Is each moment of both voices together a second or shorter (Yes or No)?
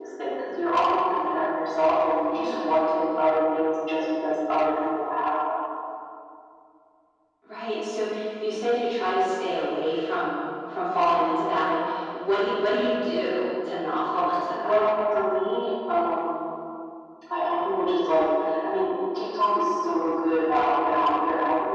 Yes